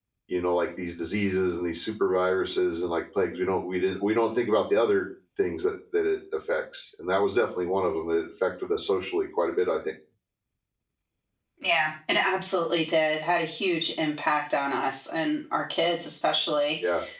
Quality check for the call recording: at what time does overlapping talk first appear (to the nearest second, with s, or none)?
none